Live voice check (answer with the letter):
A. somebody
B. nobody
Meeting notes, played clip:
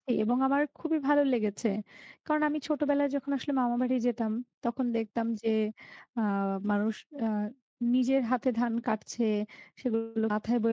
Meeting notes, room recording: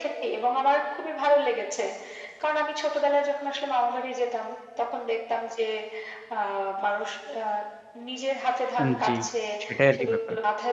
A